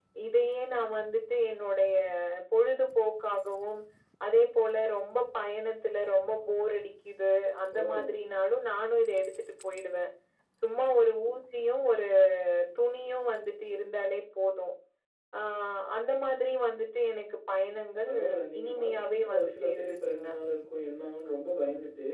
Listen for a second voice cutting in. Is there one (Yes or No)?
Yes